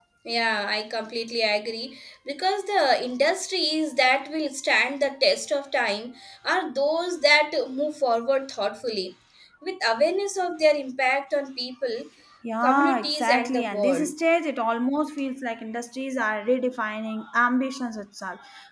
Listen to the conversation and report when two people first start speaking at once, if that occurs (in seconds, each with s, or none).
12.6 s